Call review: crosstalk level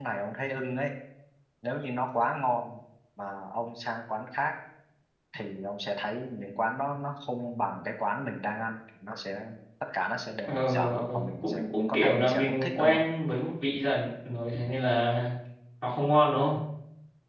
present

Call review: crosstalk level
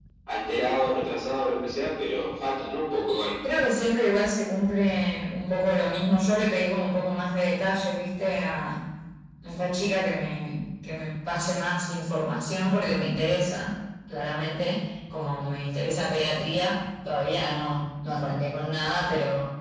none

